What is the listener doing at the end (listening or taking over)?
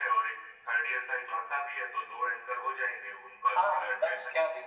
taking over